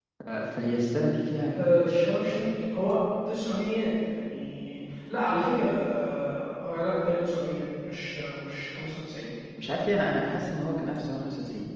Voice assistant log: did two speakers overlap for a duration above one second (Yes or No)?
No